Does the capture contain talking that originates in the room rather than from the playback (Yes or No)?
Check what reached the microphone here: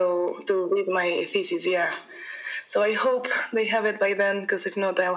No